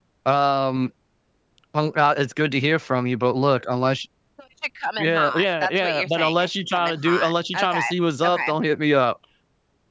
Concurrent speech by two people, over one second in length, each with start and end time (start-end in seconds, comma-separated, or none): 5.0-7.9